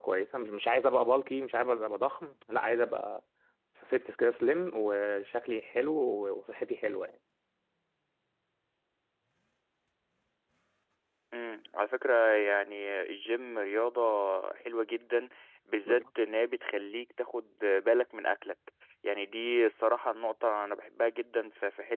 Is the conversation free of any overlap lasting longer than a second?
Yes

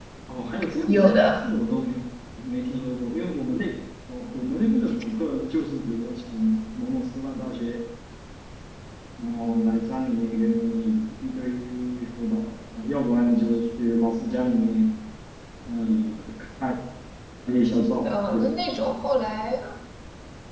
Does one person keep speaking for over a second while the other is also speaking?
No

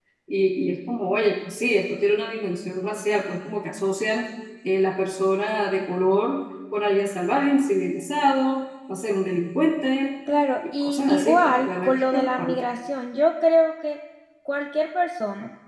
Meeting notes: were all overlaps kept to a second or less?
No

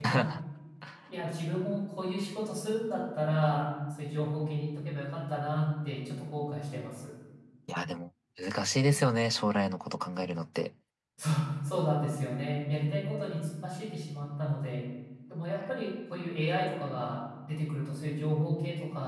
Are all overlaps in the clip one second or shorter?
Yes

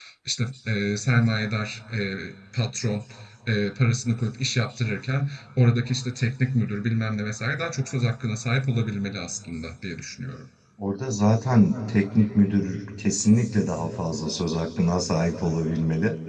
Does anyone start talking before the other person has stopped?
No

